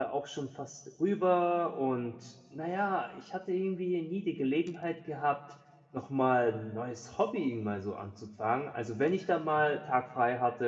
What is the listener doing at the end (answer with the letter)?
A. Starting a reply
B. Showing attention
B